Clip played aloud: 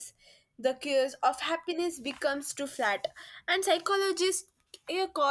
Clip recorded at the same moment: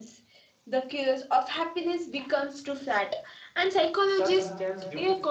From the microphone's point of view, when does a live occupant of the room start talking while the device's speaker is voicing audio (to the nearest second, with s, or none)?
4 s